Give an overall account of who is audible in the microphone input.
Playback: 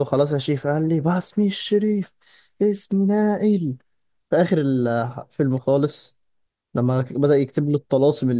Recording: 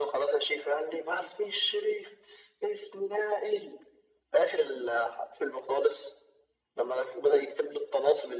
echo only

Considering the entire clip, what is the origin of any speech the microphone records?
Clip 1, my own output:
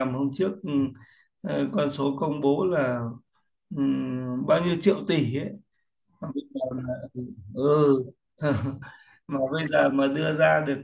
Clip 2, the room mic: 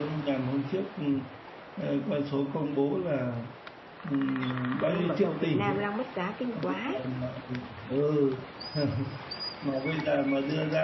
both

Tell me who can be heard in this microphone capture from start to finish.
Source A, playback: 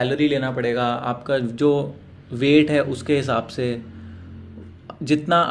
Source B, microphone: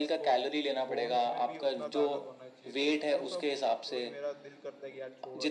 both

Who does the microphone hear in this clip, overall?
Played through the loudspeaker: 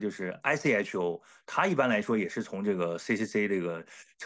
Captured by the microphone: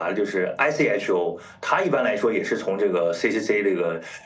echo only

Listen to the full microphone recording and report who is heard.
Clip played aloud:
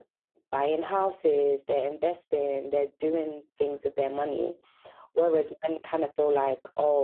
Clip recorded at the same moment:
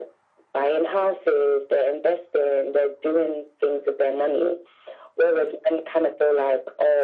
echo only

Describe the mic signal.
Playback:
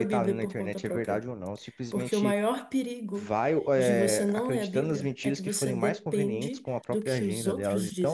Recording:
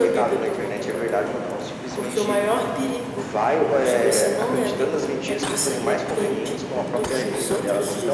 echo only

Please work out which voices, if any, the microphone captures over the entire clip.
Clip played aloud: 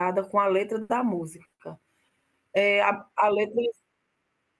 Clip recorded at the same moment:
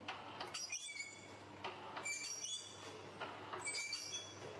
neither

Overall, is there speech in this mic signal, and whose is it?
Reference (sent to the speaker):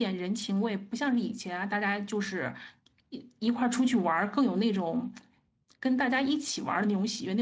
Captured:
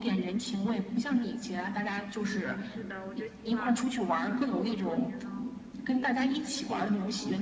both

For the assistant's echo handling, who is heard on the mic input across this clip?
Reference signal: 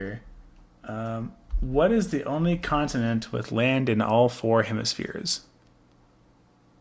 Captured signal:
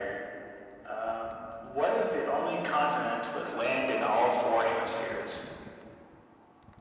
echo only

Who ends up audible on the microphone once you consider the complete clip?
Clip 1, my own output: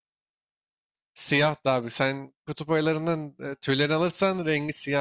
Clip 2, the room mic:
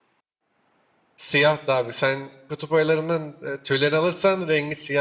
echo only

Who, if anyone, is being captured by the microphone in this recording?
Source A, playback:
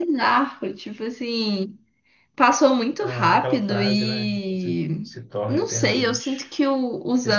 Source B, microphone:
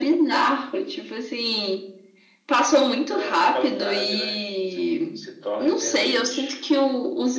echo only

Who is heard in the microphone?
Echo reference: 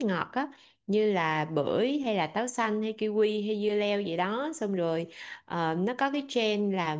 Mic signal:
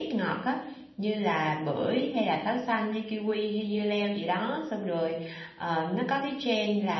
echo only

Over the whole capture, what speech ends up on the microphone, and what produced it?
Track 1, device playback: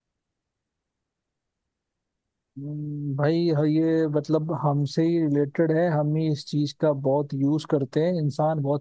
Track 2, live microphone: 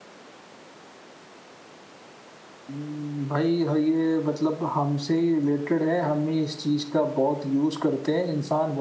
echo only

